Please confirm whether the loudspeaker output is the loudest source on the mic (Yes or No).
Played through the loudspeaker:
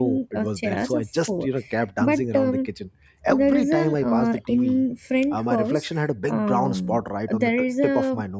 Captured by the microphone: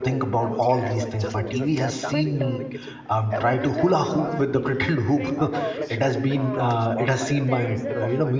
No